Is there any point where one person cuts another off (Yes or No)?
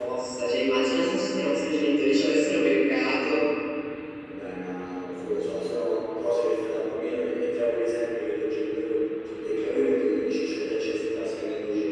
No